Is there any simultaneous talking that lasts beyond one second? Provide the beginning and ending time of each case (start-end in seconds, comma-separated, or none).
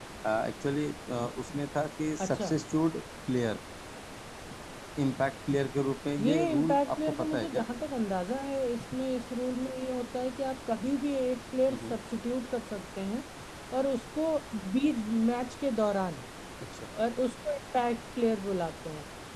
6.2-7.6